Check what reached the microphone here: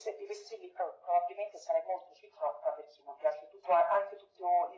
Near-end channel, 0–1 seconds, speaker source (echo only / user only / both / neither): echo only